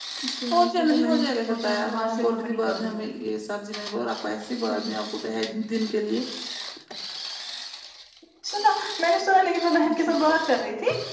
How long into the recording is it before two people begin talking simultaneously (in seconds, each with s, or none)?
0.6 s